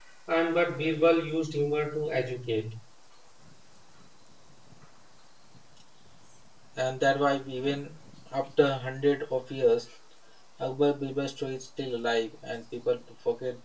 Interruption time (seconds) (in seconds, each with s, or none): none